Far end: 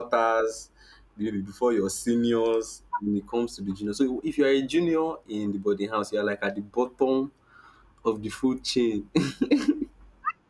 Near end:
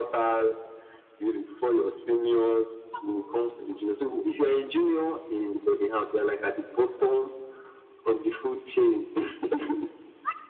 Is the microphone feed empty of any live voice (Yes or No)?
Yes